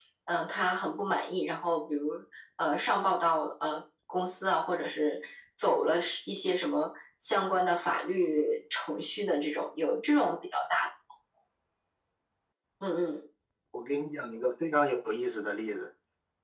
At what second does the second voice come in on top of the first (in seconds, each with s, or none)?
none